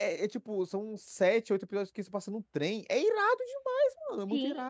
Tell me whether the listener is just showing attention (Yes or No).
No